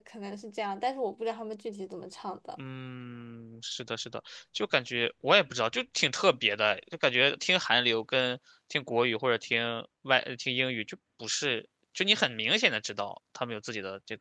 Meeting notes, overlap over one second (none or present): none